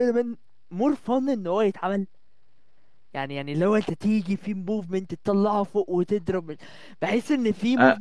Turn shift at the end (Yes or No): No